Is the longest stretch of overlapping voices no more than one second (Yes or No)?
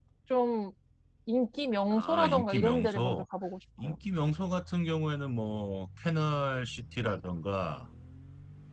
No